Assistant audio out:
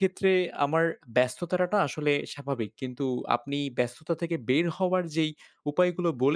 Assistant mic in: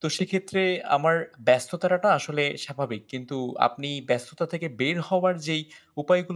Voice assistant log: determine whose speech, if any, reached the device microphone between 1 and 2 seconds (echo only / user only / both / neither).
echo only